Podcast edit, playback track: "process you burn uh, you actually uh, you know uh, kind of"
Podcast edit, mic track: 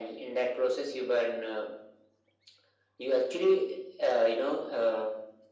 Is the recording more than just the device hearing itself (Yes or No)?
No